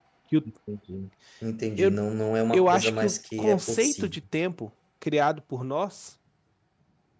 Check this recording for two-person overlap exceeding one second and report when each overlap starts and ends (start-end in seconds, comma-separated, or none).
2.5-4.2